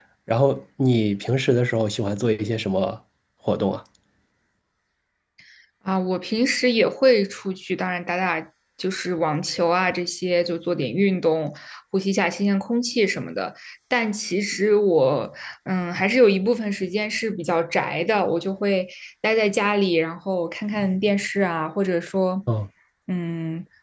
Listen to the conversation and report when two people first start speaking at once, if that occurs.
none

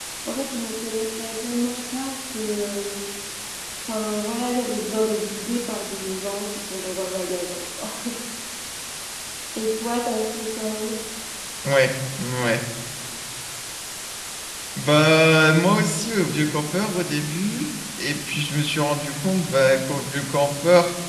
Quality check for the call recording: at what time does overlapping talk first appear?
none

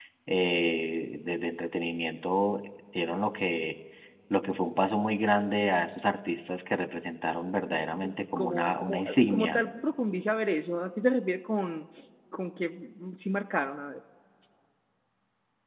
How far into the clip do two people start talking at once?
8 s

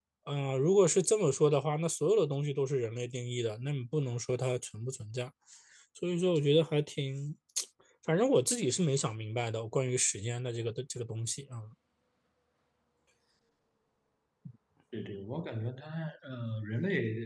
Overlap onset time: none

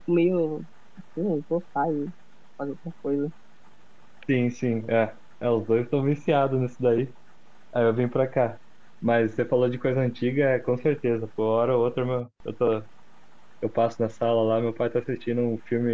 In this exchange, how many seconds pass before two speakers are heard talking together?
none

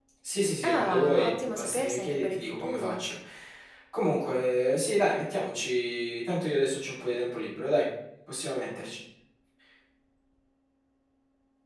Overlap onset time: 1 s

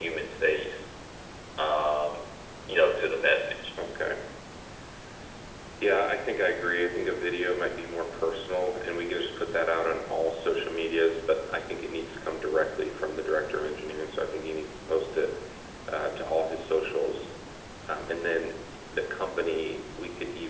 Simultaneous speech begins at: none

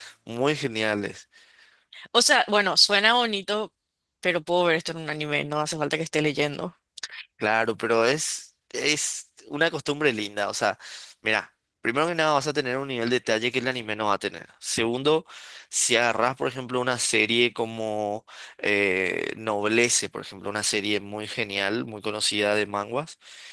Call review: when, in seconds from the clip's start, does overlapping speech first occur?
none

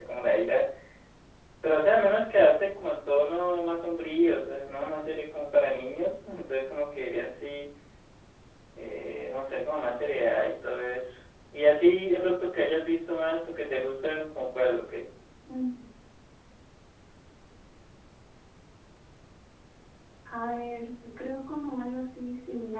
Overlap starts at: none

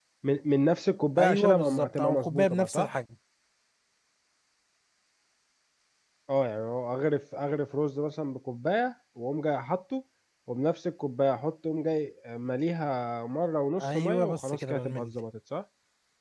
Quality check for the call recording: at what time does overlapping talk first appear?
1 s

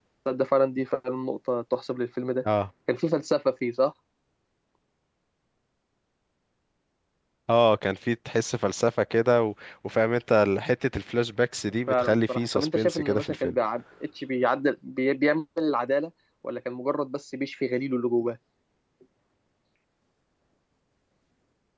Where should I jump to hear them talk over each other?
12 s

